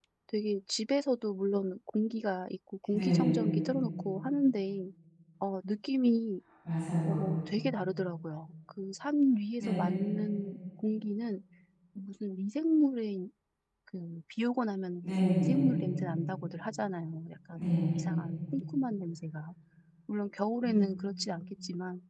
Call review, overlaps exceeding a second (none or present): none